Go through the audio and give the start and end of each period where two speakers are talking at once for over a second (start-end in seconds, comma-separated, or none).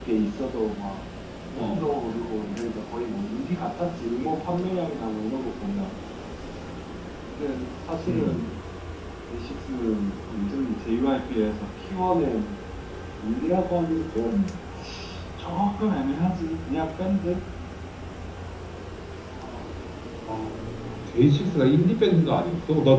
none